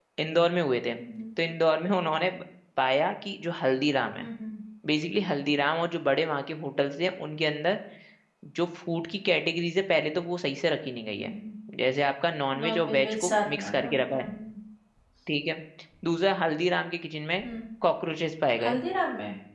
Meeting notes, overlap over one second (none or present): present